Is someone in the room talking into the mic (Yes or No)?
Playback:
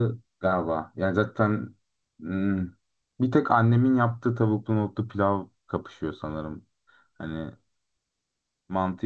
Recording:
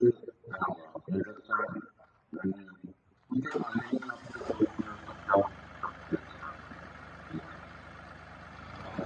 No